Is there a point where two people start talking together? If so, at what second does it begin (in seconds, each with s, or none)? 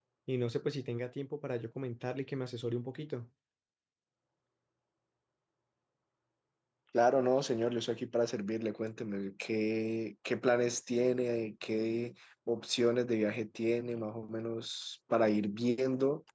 none